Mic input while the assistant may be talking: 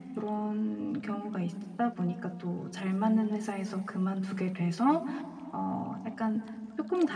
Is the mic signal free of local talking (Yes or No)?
Yes